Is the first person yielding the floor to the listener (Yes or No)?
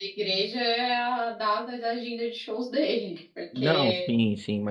Yes